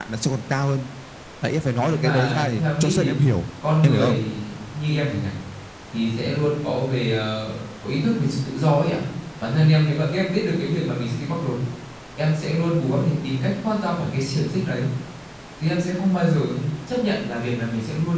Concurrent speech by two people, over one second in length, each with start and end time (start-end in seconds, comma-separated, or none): 1.9-3.1